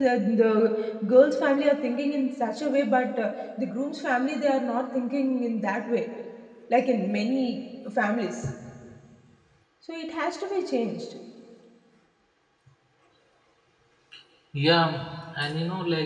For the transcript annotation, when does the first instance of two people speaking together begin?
none

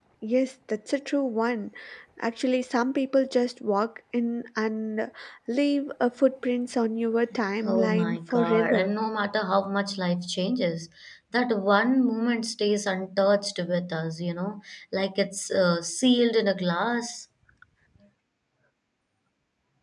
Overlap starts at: 7.6 s

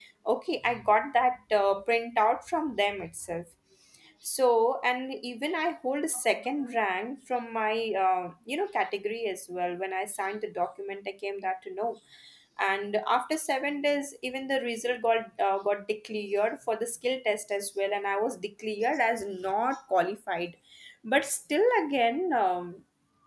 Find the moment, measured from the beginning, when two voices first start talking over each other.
none

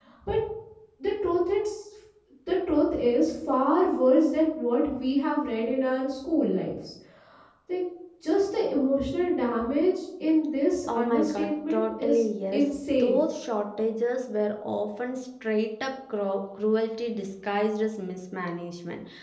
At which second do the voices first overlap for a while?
10.9 s

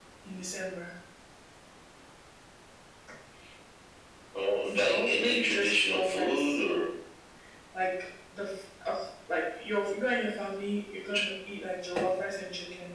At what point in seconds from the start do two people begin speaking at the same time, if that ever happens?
4.7 s

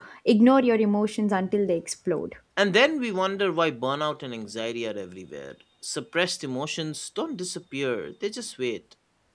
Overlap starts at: none

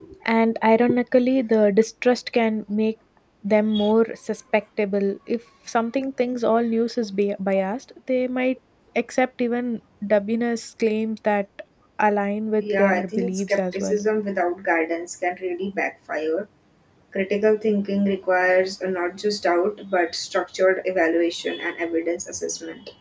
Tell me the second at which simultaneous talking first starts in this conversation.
12.6 s

